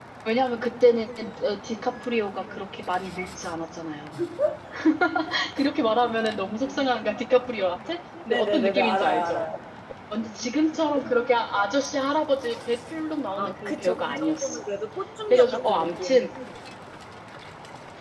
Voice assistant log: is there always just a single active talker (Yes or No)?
No